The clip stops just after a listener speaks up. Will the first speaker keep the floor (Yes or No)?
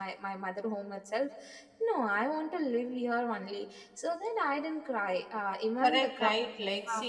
No